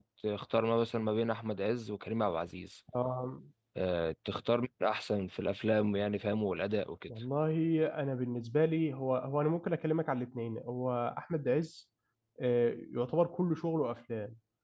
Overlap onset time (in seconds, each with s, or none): none